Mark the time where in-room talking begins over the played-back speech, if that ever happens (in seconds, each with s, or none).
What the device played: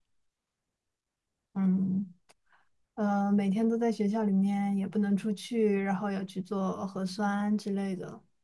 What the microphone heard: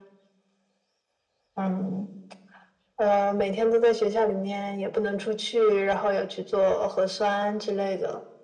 none